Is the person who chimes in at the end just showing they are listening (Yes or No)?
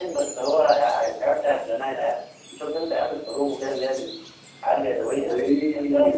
No